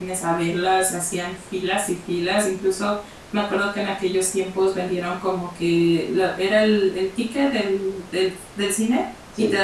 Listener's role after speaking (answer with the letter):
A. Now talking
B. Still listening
B